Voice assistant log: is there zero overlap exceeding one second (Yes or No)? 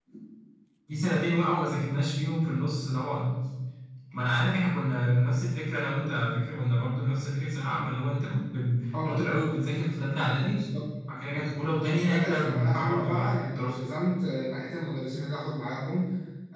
No